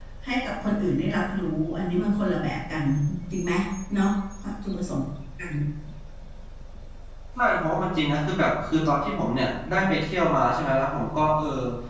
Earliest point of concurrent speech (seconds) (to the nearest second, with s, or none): none